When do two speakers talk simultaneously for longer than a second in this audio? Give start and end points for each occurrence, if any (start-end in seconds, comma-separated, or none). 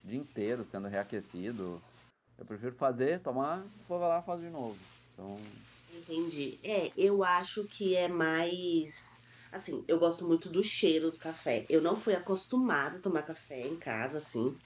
none